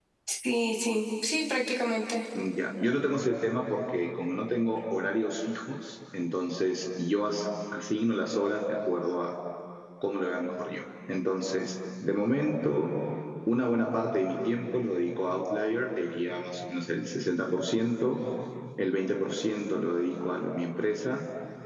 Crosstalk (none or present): none